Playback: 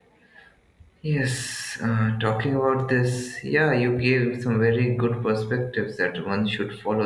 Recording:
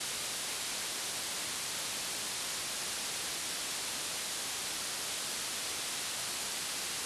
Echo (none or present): none